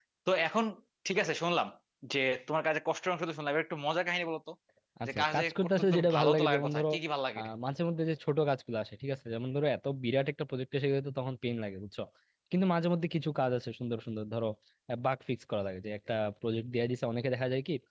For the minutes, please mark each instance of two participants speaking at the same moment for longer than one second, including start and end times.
5.1-6.8

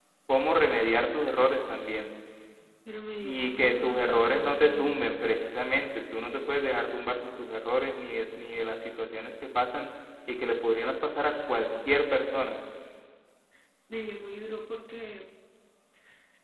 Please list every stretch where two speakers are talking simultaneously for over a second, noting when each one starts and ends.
3.2-5.0

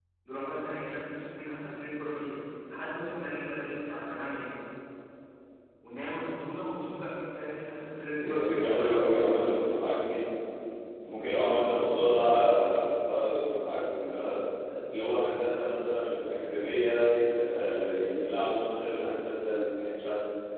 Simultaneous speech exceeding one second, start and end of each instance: 8.2-9.5

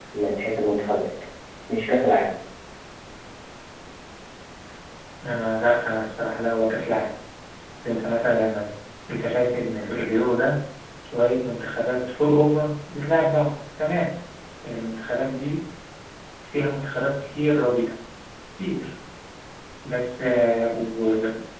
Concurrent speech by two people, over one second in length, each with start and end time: none

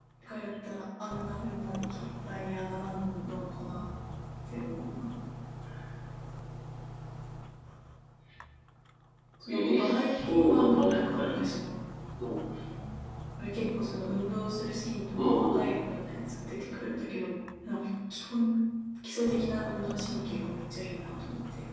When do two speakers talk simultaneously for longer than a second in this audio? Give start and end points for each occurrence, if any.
9.5-11.4

